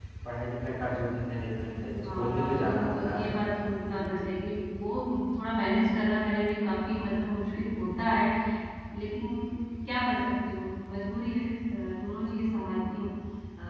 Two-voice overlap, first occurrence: 2 s

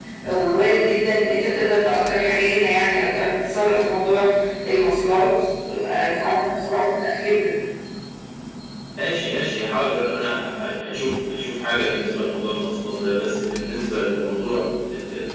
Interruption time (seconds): none

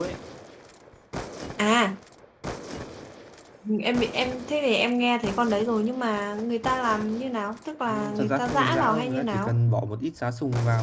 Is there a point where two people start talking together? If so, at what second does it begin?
8 s

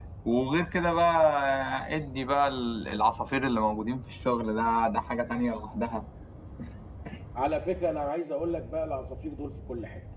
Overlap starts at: none

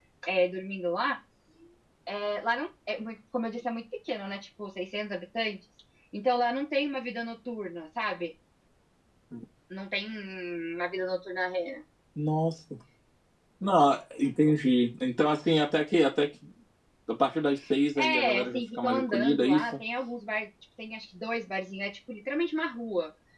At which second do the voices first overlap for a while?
18 s

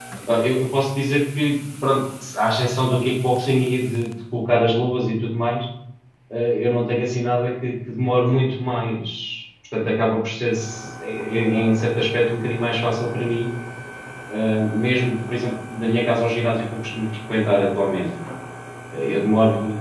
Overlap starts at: none

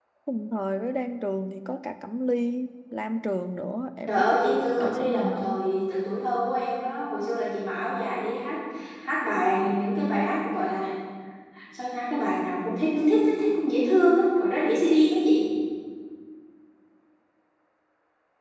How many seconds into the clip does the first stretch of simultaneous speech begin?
4 s

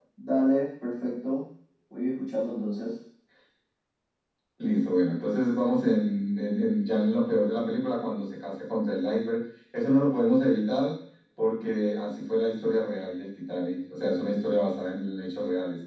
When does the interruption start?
none

